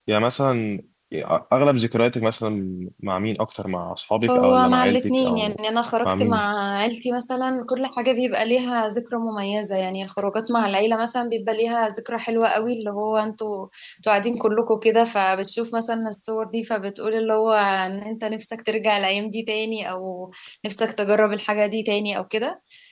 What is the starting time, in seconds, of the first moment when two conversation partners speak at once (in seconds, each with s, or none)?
4.3 s